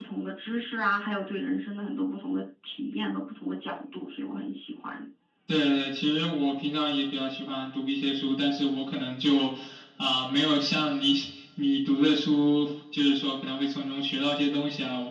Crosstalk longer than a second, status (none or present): none